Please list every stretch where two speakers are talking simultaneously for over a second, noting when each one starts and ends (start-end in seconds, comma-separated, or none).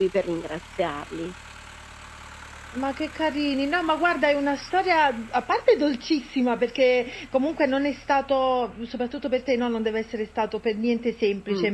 none